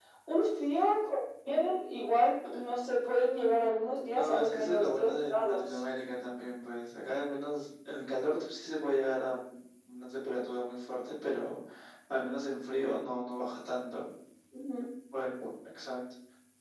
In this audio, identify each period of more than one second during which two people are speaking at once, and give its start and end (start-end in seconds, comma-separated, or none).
4.1-5.8